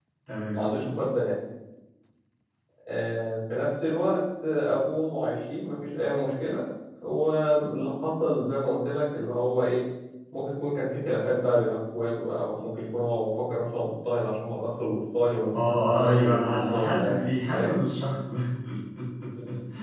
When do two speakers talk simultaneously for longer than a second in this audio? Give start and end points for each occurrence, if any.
16.0-17.8

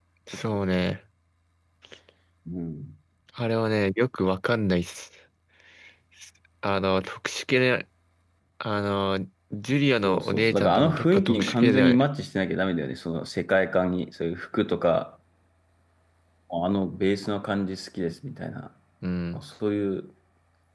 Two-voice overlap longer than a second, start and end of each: 10.0-12.0

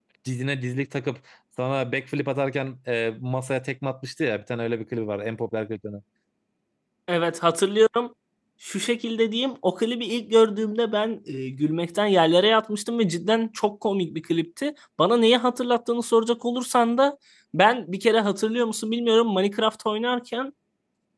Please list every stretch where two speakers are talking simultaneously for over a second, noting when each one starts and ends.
none

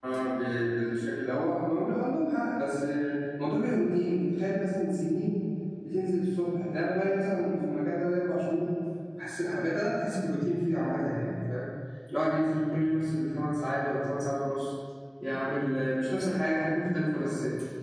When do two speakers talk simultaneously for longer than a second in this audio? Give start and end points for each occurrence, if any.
none

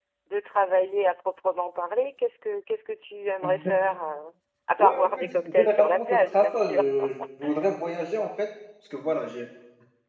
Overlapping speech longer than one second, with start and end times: 4.8-6.8

